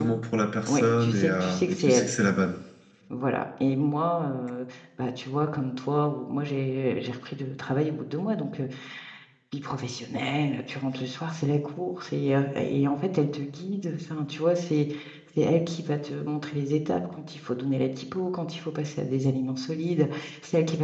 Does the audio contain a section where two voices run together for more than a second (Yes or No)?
Yes